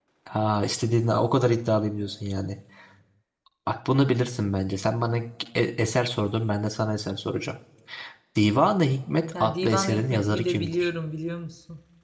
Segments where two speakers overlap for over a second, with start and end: 9.4-10.9

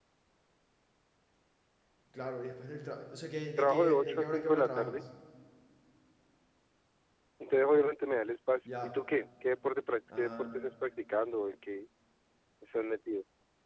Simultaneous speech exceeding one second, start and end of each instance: 3.6-5.0

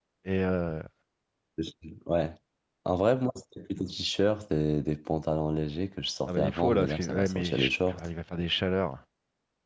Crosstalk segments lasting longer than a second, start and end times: 6.3-8.1

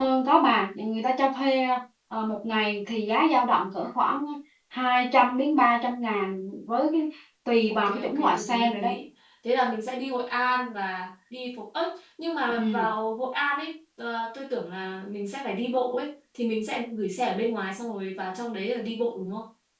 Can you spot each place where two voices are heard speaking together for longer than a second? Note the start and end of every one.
7.7-9.0

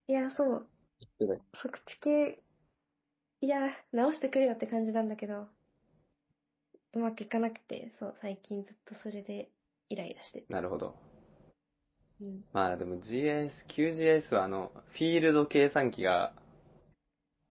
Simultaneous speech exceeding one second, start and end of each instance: none

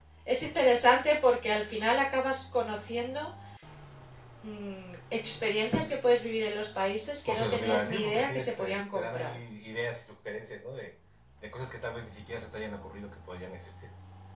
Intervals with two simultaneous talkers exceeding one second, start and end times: 7.2-9.2

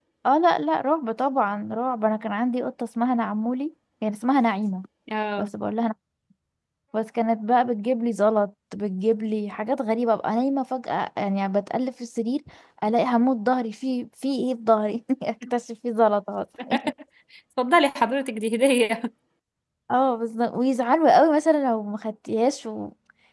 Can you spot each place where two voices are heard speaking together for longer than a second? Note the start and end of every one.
none

